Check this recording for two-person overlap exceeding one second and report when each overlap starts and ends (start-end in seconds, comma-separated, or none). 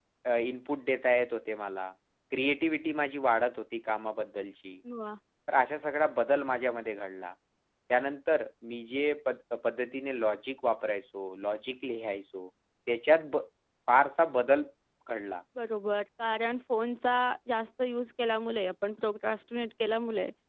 none